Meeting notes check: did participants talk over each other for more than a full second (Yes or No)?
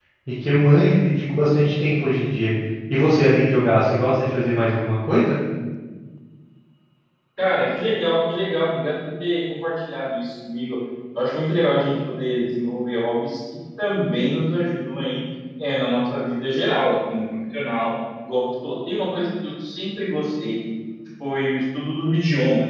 No